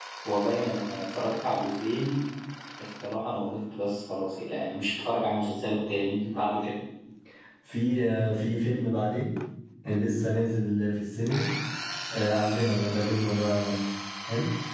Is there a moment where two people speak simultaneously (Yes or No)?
No